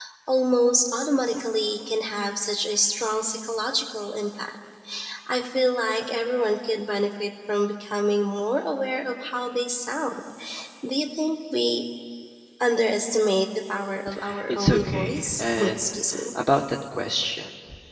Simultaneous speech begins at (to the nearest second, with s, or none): 14 s